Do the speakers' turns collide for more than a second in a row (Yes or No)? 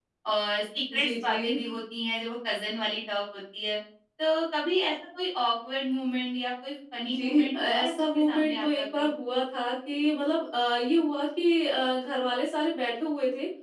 Yes